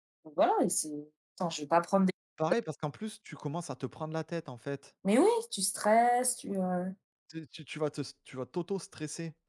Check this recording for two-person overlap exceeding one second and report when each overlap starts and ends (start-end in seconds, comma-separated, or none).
none